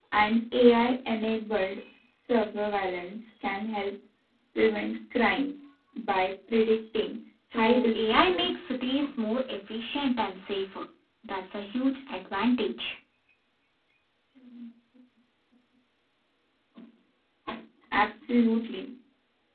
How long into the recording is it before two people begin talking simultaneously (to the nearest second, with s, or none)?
8 s